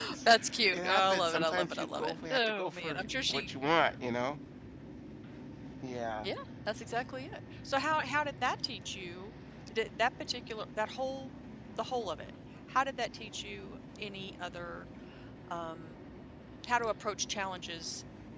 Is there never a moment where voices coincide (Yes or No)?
No